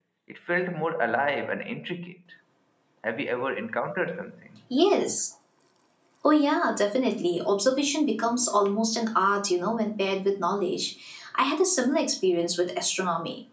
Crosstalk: none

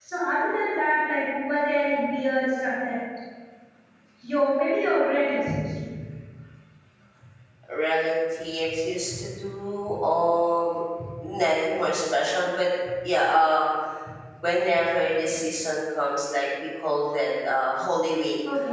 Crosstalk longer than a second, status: none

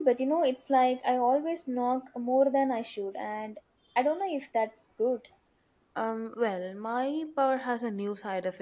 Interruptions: none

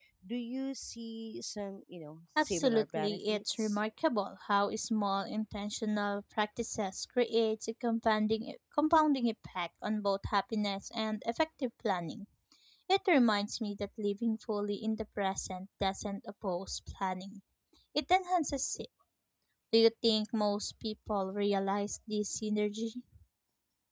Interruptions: present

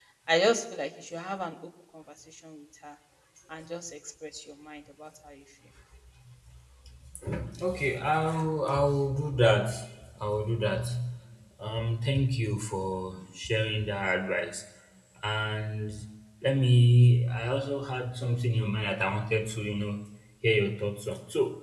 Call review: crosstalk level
none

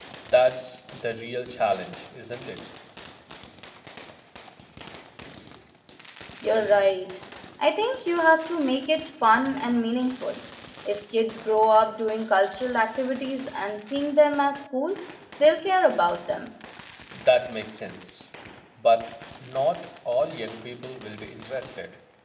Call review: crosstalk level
none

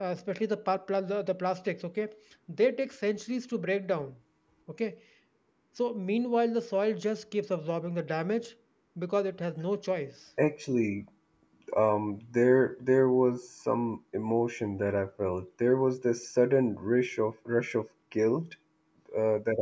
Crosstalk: none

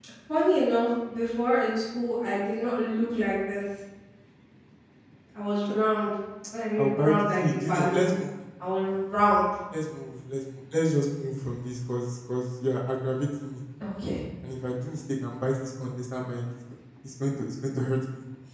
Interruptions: present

